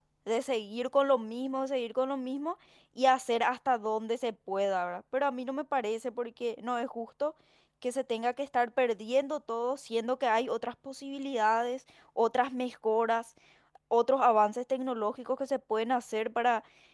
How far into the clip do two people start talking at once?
none

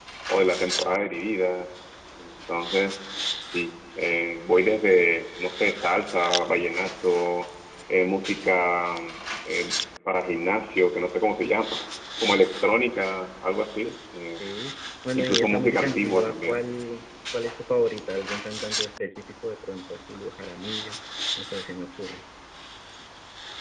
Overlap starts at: 15 s

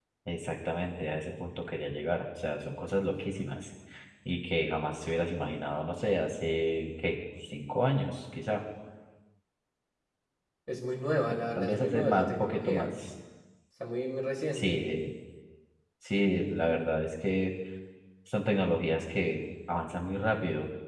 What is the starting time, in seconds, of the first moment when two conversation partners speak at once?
11 s

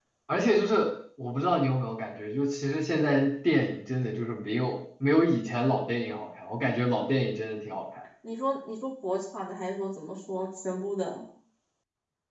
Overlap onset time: none

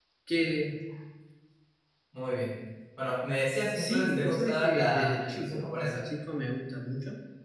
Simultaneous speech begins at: 4 s

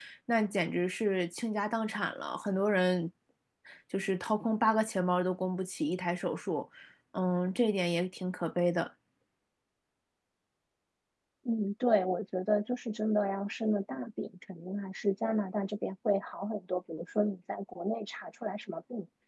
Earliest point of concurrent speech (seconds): none

